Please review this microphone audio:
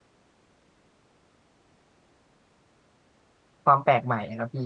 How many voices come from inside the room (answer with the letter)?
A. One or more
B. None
A